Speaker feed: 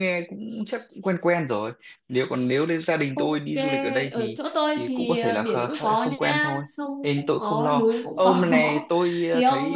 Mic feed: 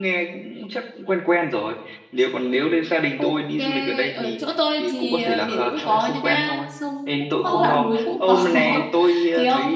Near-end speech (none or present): present